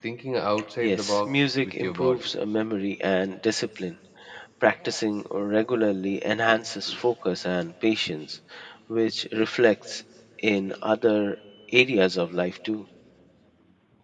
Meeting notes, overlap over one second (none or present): present